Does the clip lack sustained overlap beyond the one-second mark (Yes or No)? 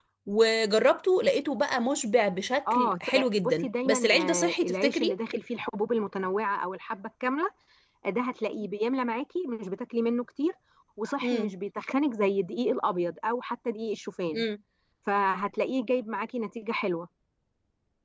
No